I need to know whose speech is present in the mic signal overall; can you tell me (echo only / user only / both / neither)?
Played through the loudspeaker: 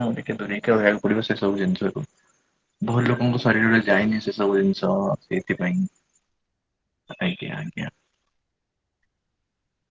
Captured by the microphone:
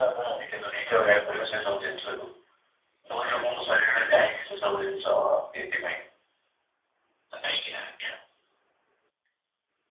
echo only